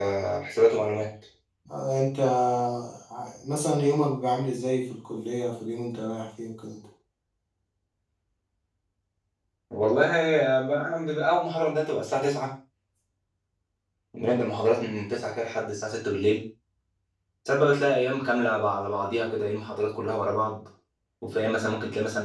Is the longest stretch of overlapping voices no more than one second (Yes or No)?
Yes